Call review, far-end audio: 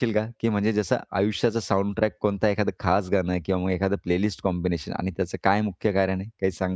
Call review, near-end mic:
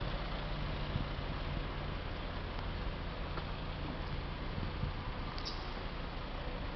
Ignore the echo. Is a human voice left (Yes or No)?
No